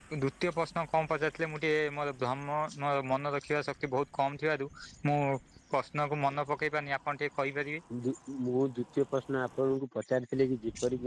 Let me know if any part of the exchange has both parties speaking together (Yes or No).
No